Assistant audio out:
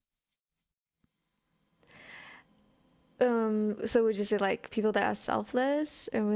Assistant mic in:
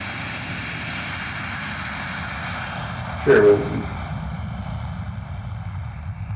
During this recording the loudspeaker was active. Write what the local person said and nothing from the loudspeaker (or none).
sure, what would you?